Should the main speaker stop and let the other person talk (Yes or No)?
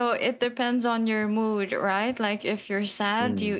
No